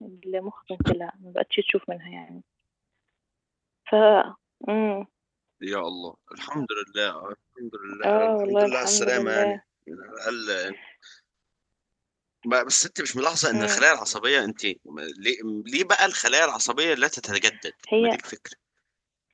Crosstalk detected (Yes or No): Yes